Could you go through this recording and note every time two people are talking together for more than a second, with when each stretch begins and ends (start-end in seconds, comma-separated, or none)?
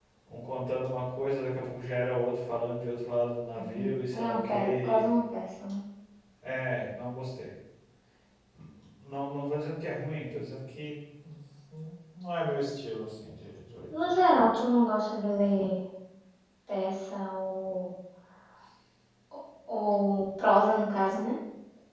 3.6-5.0